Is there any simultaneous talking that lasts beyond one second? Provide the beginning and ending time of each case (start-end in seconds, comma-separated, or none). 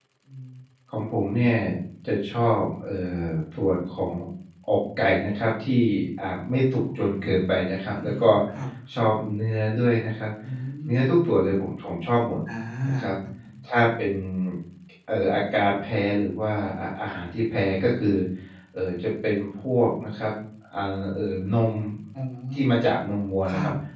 none